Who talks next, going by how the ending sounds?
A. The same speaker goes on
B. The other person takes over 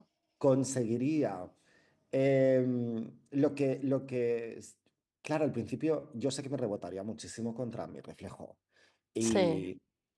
A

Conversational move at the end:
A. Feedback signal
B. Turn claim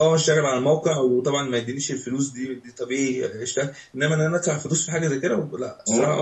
B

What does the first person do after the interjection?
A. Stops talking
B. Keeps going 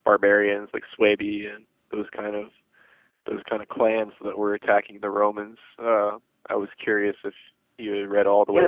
A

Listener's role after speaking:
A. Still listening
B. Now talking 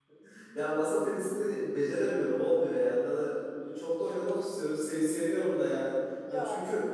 A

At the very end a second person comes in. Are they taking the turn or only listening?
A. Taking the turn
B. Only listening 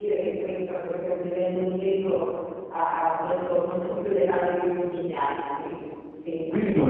A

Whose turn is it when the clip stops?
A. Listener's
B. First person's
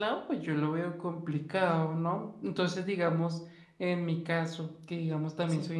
B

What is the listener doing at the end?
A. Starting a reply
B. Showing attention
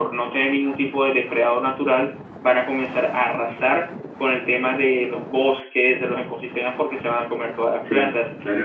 B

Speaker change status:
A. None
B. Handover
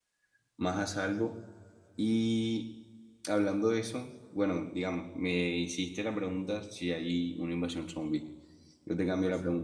A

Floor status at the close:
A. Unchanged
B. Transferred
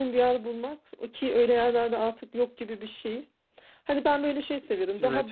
A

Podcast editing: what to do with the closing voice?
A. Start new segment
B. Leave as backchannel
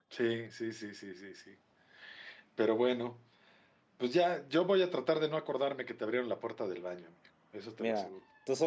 A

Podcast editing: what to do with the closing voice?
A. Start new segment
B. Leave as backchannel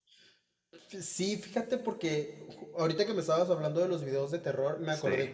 B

